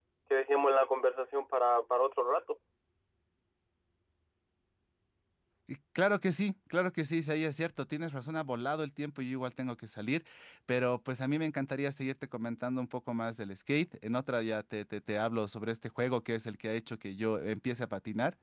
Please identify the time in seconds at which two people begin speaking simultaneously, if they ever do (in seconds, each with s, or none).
none